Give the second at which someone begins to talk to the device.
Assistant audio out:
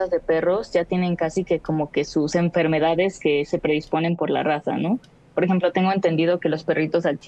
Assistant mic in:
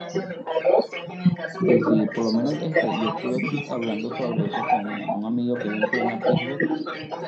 1.6 s

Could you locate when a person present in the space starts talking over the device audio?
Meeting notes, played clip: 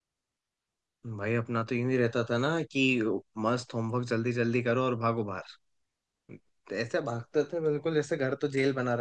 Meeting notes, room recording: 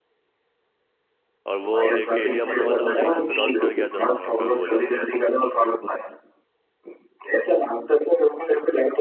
1.5 s

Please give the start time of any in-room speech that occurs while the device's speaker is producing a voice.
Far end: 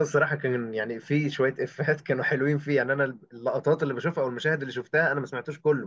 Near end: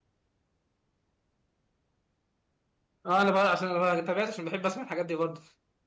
3.1 s

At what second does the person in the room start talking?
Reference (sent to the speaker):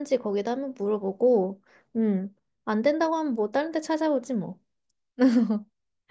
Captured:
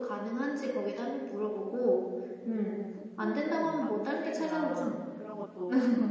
2.3 s

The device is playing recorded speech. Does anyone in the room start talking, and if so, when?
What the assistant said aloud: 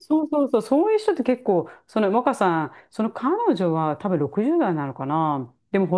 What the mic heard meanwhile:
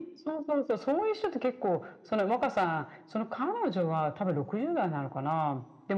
none

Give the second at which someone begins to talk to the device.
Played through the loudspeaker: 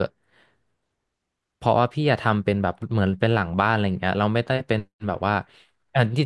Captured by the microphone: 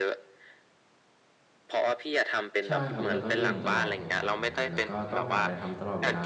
2.6 s

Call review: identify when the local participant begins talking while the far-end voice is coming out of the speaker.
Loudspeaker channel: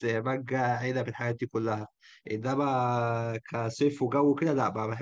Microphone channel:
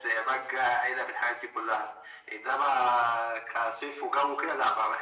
none

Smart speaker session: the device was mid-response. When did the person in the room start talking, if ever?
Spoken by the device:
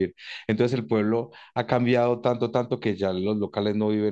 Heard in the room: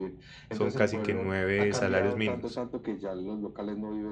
0.5 s

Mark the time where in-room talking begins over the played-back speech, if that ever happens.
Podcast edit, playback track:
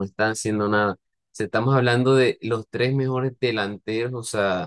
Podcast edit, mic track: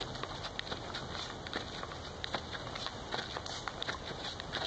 none

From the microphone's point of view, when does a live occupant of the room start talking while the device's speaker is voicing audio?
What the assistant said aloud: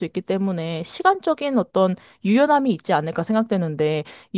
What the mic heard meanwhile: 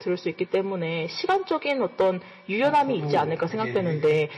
2.6 s

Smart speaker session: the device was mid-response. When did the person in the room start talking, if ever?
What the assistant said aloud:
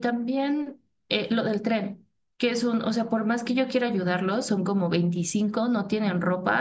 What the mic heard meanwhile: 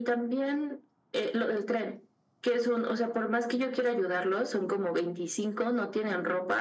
none

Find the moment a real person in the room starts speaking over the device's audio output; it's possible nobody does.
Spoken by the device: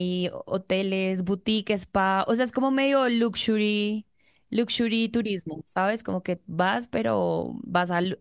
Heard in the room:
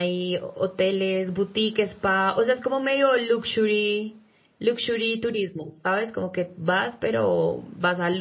none

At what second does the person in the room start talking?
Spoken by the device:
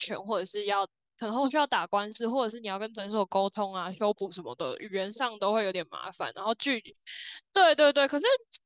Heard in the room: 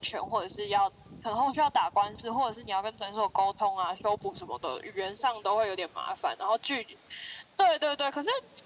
none

